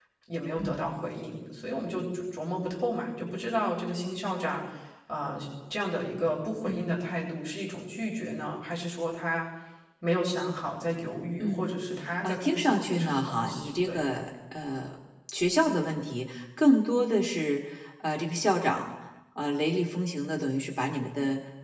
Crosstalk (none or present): present